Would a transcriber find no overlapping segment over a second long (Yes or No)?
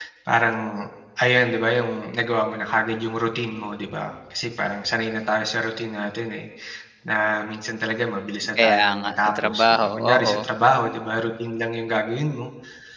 No